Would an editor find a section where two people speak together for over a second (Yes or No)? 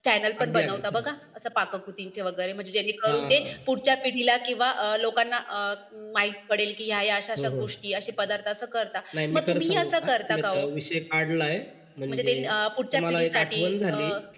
Yes